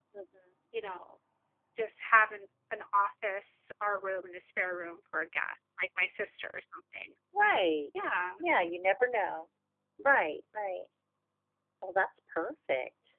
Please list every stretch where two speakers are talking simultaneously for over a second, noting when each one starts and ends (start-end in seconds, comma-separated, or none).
none